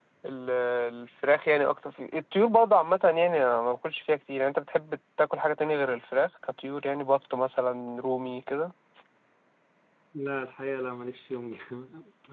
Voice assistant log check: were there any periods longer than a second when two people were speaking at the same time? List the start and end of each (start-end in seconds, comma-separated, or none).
none